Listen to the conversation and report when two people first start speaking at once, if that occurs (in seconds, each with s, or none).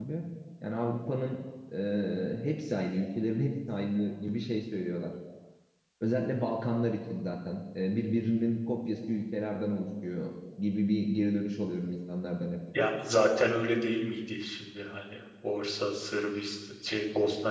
none